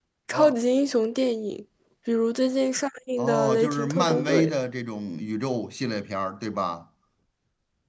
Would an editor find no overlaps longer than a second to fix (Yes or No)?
No